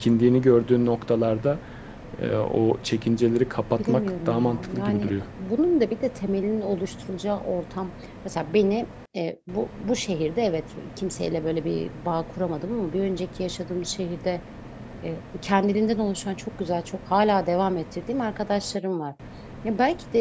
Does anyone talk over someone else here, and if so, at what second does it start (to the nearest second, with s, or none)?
4 s